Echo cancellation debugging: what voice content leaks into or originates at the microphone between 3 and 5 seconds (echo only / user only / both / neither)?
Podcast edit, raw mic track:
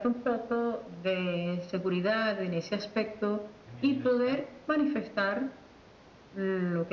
both